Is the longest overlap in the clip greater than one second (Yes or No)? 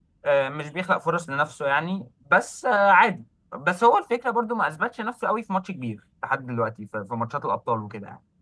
No